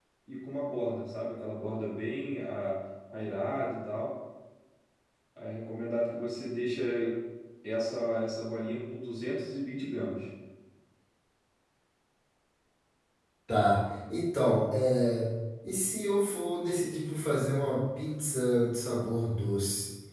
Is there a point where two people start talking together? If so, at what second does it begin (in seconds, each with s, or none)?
none